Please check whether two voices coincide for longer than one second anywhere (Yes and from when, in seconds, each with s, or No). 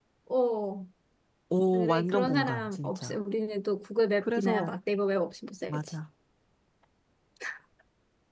Yes, from 1.7 s